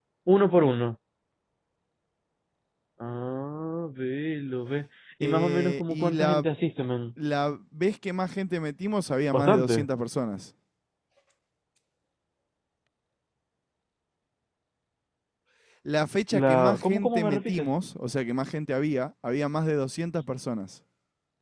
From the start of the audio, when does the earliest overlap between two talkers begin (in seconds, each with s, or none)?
5.2 s